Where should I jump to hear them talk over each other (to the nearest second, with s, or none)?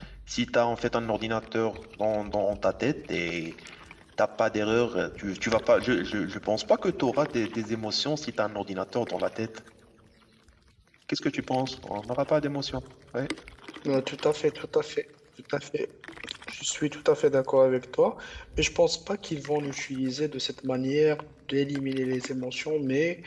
none